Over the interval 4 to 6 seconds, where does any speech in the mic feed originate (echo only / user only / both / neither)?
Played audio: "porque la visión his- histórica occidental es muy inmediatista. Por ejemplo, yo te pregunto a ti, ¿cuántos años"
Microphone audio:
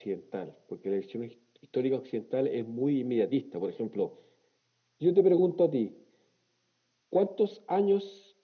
echo only